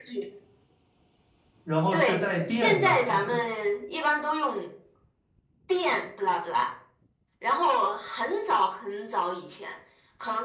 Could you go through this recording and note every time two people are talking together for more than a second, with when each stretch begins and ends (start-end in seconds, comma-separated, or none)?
1.9-3.4